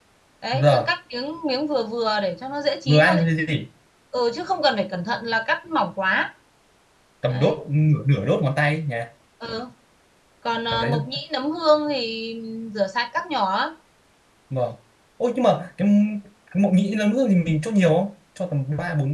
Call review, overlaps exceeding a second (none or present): none